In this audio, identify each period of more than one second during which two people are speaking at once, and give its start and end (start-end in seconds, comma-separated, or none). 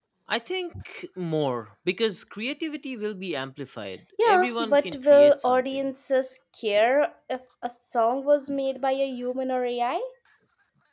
4.2-5.8